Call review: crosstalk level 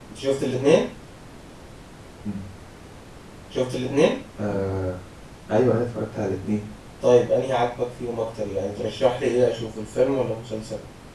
none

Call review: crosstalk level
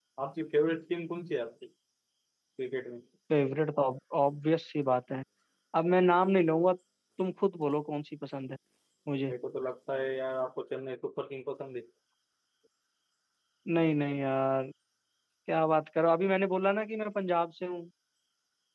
none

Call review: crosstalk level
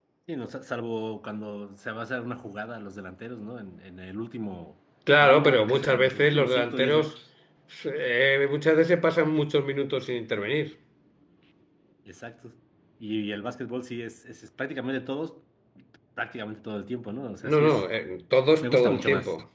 present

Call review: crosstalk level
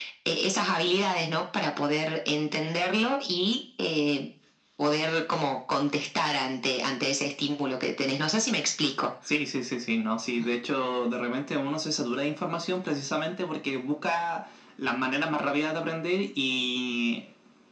none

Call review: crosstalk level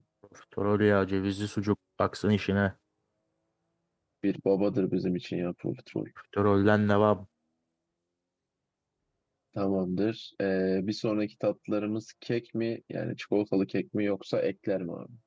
none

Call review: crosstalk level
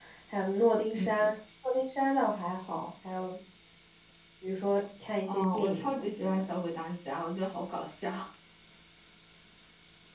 present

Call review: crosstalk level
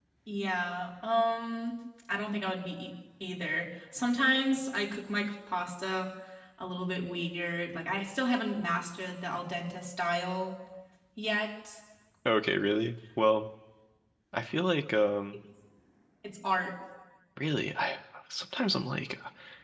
none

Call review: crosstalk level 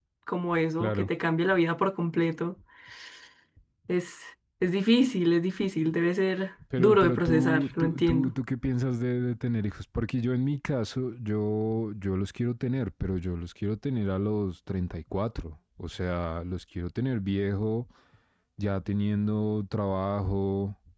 present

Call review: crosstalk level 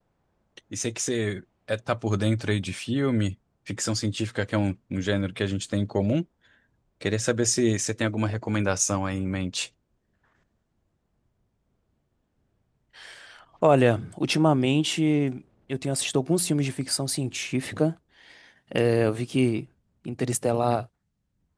none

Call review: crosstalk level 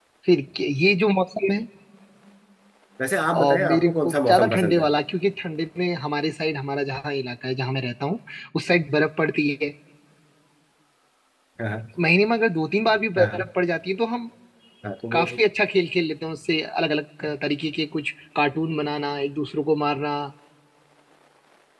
present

